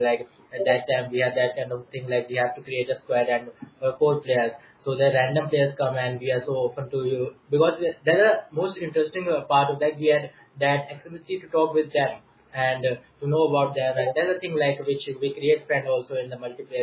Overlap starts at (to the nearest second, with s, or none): none